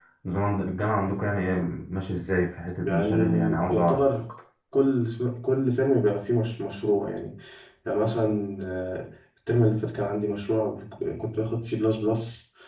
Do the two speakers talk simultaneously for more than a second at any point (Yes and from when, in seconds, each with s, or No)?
Yes, from 2.8 s